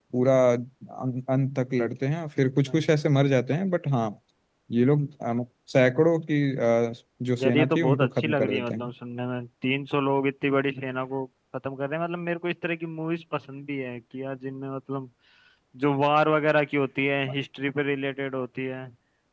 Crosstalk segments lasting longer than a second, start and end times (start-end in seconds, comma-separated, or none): 7.4-8.9